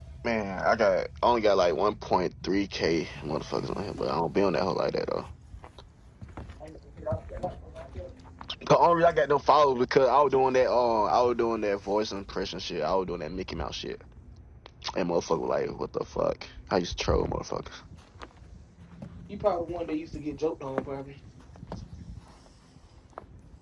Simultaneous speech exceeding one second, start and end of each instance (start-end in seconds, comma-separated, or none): none